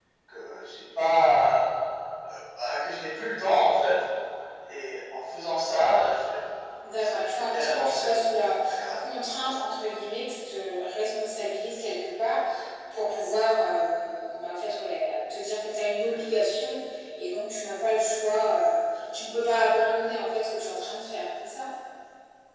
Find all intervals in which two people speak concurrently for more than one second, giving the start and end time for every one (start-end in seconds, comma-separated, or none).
7.0-8.6